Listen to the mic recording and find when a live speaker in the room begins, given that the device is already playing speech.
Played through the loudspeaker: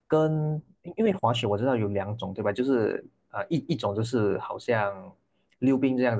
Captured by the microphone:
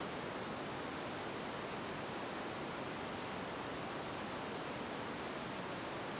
none

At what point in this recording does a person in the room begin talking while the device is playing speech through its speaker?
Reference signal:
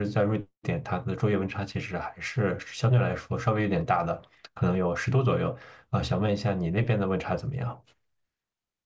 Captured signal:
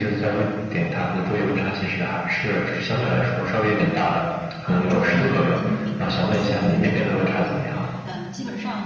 5 s

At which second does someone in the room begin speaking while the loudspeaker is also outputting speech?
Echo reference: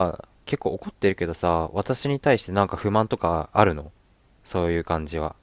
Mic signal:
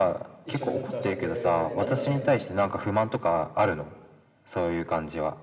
0 s

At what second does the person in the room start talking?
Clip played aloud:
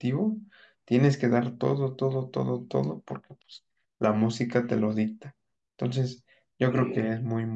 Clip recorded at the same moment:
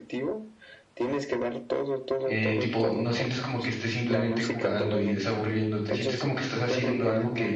2 s

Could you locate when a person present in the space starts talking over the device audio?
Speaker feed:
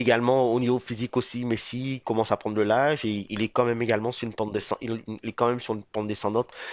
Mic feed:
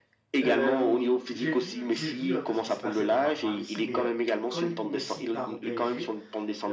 0 s

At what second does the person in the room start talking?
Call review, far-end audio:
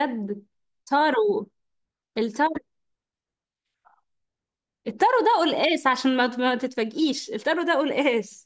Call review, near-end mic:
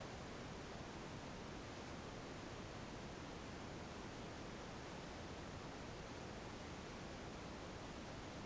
none

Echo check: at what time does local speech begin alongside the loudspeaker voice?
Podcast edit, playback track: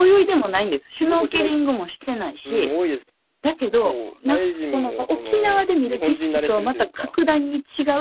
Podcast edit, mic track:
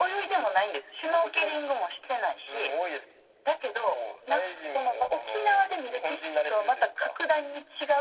none

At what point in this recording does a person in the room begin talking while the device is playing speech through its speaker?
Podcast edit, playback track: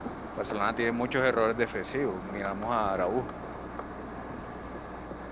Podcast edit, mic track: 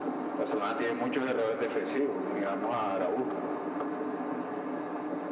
none

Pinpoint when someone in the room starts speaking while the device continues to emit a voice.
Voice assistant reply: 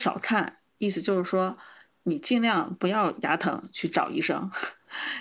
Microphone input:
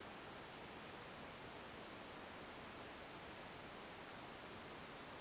none

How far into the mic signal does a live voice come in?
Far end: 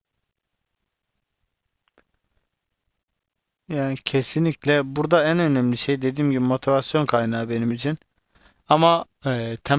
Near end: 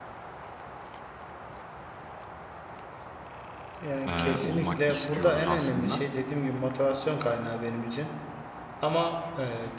4 s

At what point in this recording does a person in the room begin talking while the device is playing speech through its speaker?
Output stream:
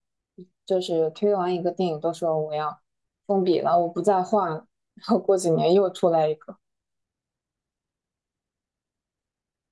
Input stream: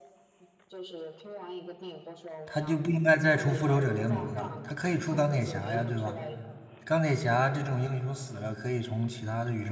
2 s

